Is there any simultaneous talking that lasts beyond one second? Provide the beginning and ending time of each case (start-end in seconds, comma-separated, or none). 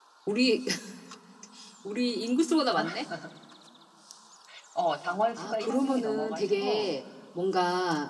5.4-6.9